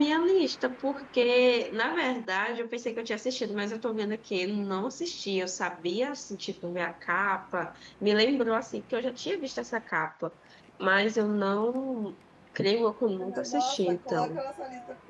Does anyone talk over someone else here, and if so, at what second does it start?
13.1 s

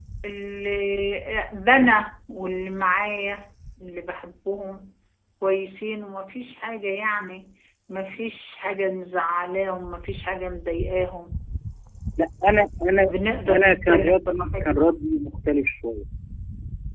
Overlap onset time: 13.5 s

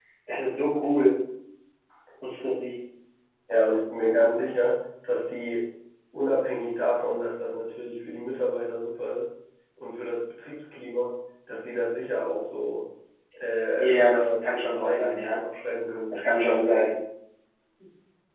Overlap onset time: 13.8 s

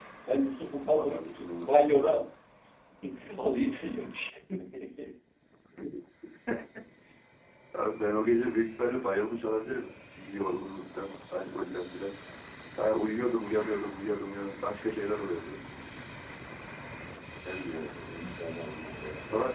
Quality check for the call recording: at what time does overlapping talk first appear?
0.9 s

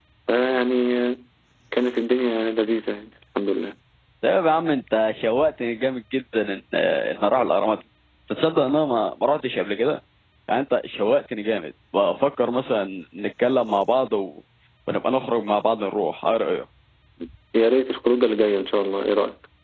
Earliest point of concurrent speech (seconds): none

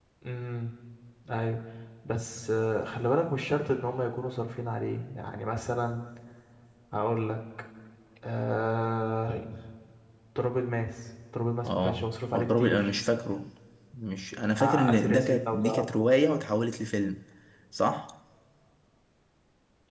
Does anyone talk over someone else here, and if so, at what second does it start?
11.6 s

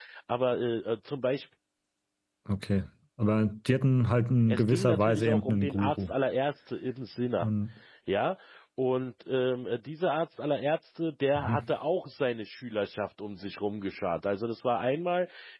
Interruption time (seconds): 4.5 s

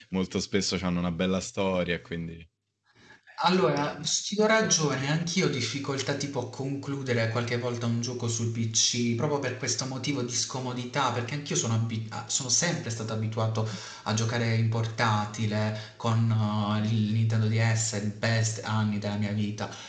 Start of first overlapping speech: none

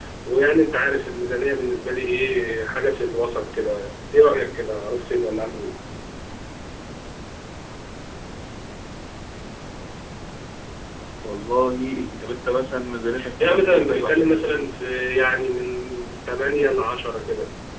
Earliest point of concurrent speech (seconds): 13.2 s

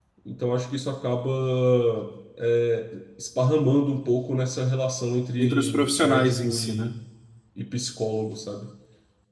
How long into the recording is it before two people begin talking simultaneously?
5.4 s

